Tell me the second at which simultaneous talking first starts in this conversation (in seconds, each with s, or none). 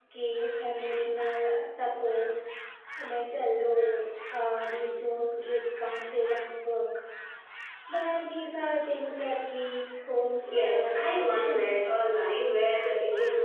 10.4 s